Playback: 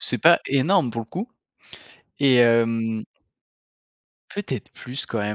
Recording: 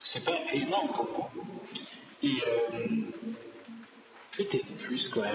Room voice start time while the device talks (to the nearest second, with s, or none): none